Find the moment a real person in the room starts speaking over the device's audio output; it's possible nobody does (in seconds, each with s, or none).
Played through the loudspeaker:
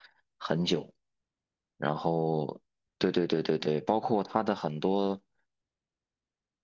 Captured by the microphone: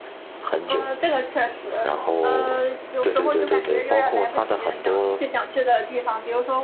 0.6 s